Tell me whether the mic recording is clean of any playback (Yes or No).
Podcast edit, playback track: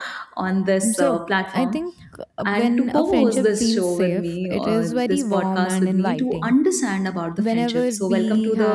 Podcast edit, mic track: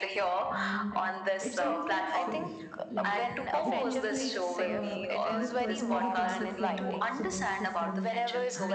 No